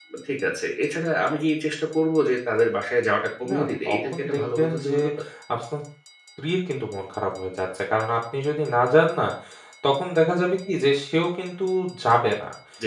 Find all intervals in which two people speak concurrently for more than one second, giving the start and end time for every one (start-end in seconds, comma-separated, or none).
3.5-5.0